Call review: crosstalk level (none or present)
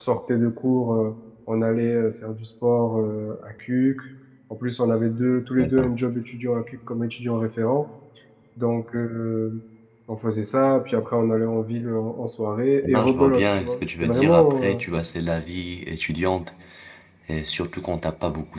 present